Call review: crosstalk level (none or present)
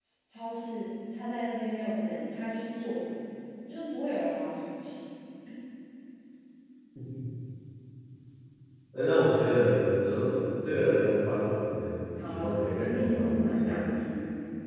present